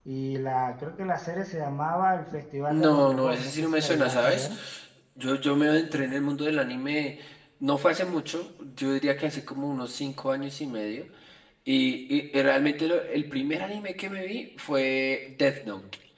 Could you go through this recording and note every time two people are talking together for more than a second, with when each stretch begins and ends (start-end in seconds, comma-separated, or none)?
2.7-4.5